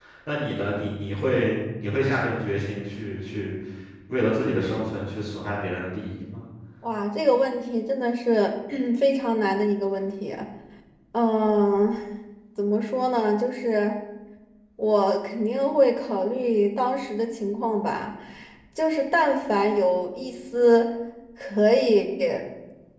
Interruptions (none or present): none